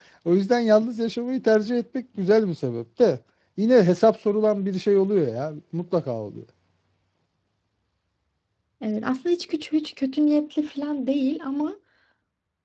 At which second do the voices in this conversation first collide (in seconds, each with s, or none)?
none